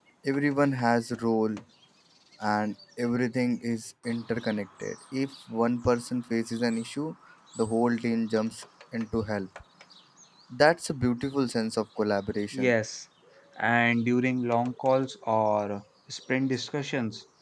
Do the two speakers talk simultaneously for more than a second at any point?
No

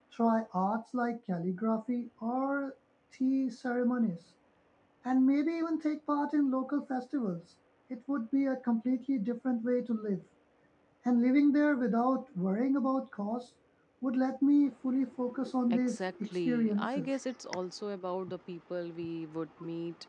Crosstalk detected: Yes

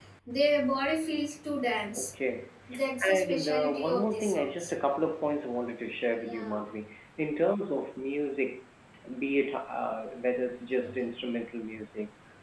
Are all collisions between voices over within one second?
No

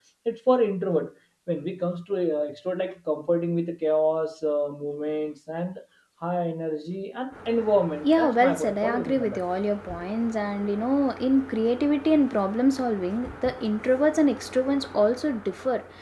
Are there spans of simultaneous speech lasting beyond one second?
Yes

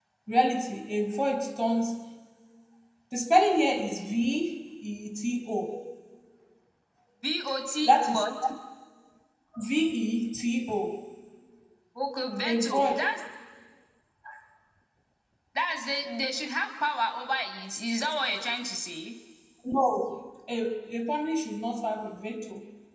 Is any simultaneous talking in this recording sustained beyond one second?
No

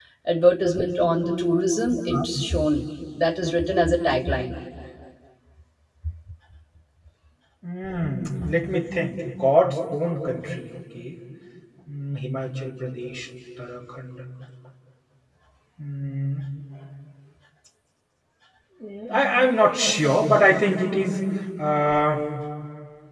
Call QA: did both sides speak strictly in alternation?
Yes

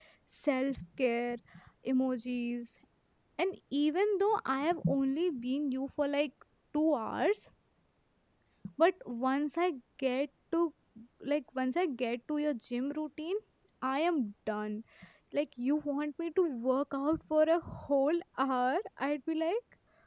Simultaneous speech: No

